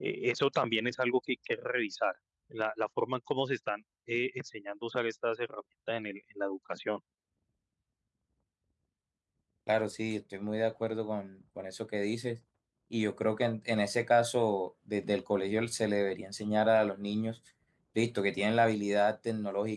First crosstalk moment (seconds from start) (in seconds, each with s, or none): none